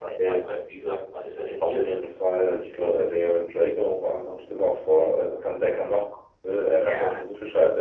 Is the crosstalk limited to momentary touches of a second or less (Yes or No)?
Yes